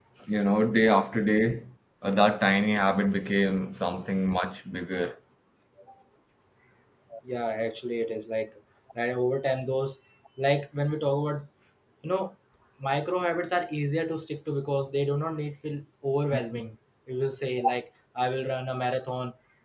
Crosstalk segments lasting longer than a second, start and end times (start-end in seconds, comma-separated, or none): none